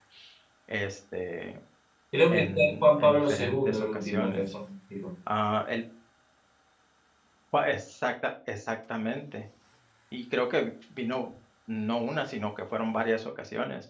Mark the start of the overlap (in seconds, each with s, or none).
2.3 s